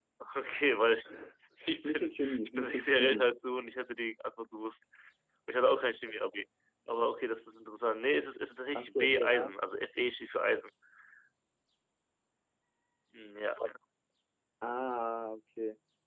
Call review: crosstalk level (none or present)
present